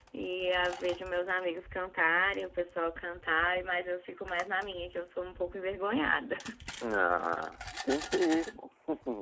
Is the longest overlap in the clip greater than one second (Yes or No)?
No